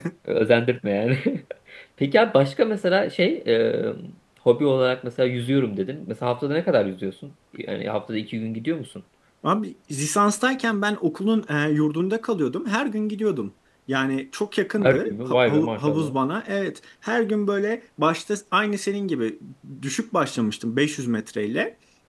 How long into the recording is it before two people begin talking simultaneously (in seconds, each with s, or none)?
14.8 s